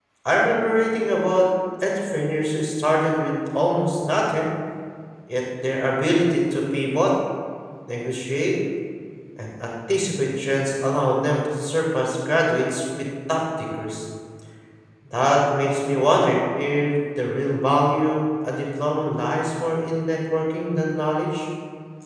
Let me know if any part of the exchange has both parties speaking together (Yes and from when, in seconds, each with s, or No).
No